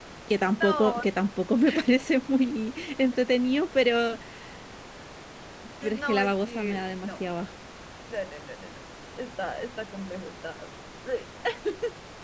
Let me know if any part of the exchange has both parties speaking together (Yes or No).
Yes